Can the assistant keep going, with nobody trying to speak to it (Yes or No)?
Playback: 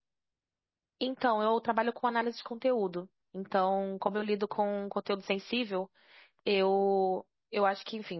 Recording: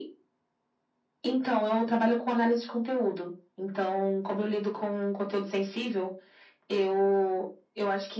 Yes